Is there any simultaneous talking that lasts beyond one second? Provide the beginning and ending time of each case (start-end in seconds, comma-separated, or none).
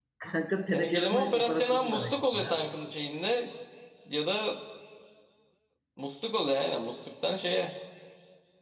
0.7-2.5